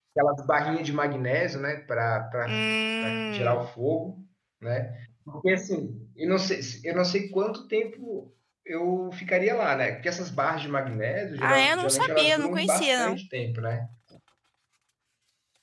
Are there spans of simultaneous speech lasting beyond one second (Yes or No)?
Yes